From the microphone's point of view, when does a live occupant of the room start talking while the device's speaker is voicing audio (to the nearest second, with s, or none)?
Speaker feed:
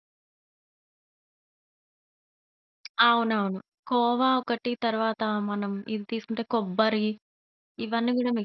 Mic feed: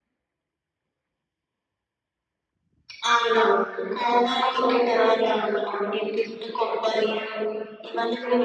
none